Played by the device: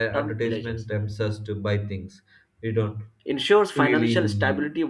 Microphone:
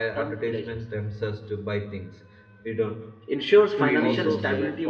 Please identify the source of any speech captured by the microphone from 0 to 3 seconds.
echo only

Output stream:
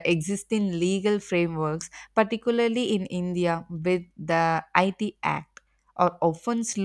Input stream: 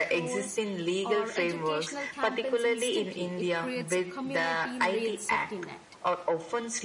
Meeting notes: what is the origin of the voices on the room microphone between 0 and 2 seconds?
both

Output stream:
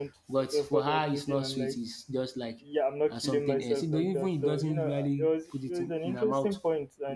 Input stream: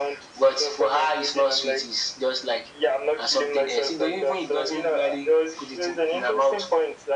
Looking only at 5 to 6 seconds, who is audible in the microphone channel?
echo only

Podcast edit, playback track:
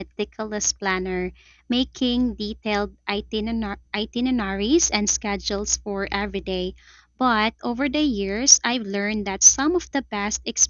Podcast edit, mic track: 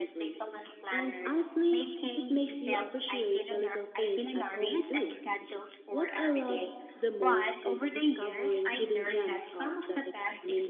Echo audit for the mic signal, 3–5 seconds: both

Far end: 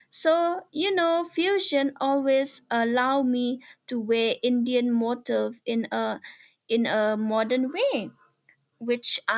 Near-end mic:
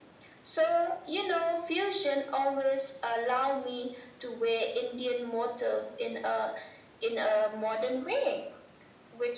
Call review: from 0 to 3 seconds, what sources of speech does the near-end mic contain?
echo only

